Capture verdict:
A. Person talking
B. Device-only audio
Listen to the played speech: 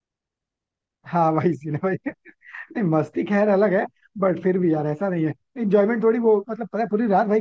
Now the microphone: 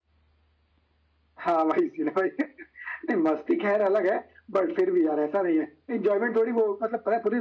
B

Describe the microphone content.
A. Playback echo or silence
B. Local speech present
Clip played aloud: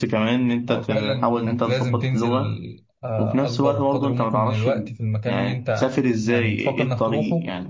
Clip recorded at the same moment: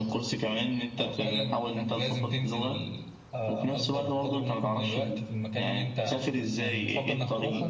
B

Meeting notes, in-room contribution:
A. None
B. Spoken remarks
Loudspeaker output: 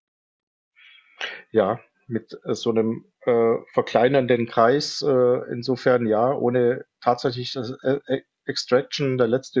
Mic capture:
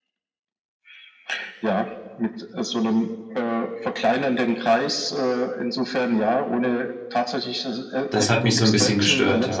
B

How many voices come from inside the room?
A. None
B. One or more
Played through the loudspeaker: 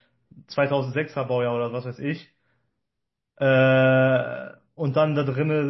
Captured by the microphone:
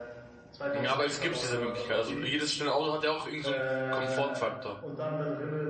B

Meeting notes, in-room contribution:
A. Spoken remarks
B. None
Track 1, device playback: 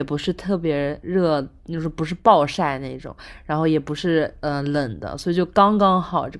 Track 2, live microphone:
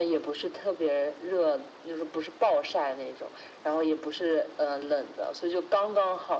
B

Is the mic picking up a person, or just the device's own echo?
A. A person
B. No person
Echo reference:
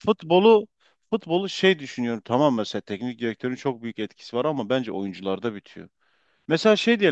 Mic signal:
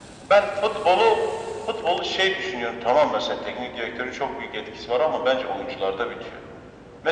B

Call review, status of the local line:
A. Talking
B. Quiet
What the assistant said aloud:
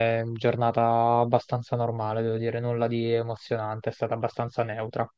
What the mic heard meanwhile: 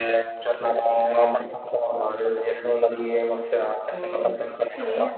A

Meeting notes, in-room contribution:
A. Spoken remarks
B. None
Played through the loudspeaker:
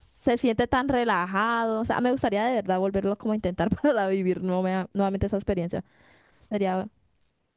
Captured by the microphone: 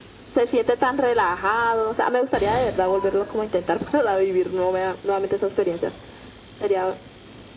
B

